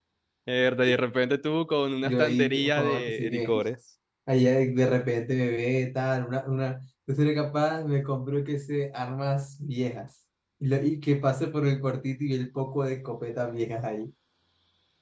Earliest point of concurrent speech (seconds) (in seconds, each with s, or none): 2.0 s